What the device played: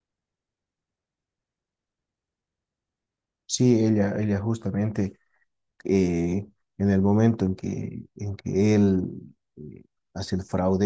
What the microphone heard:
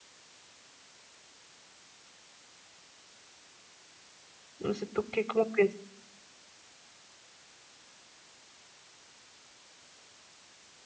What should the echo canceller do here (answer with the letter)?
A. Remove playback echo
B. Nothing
B